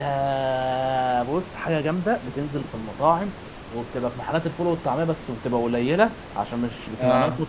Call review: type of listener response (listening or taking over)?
listening